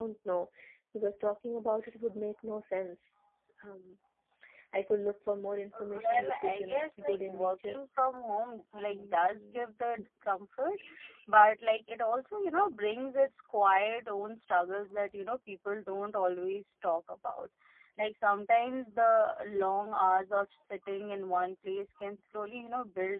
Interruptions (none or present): present